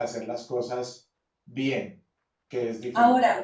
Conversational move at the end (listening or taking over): taking over